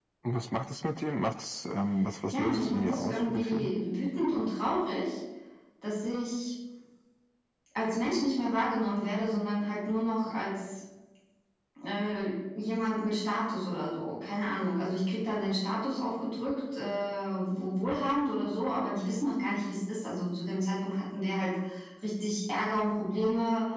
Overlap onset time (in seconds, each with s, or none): 2.3 s